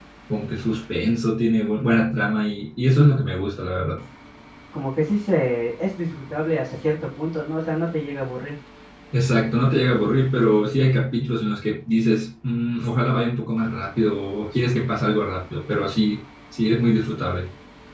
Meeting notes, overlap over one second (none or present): none